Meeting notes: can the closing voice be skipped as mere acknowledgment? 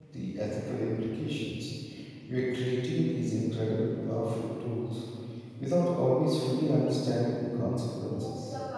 No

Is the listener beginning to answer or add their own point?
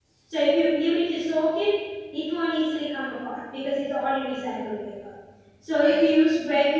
No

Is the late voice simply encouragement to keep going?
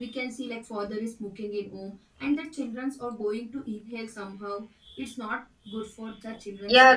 No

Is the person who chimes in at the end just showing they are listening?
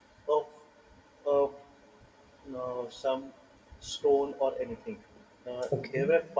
Yes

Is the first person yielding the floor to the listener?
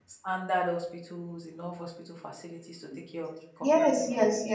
Yes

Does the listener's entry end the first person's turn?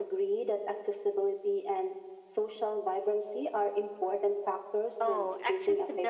Yes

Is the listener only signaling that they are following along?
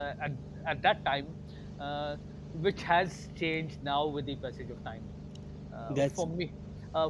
Yes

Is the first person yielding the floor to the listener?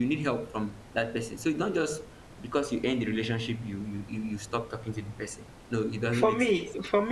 Yes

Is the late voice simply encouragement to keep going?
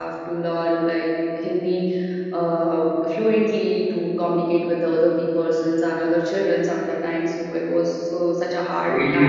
No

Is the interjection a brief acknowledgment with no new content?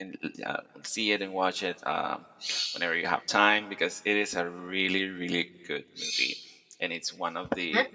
Yes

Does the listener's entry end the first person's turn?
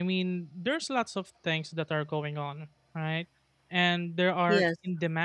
No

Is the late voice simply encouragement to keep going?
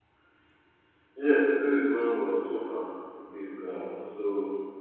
Yes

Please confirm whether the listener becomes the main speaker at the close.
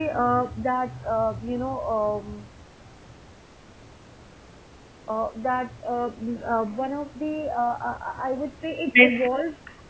No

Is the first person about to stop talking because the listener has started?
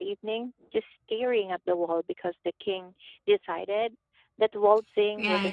Yes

